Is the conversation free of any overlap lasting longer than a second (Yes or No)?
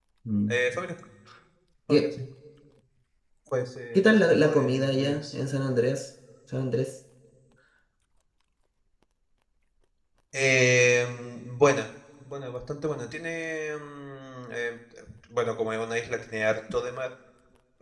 No